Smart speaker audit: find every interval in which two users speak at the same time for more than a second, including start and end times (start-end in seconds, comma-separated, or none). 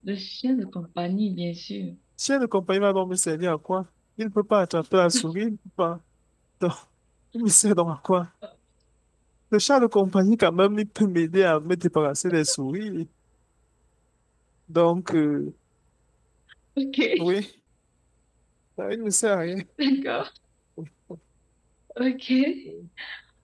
none